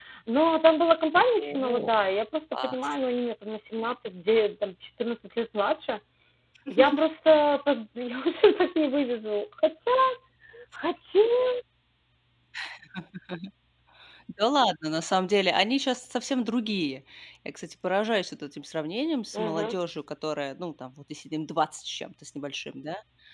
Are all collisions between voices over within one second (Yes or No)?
Yes